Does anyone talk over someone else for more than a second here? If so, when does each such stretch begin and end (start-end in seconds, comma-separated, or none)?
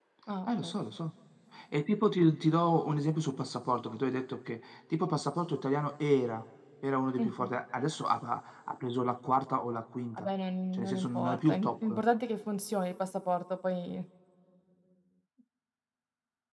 10.7-12.0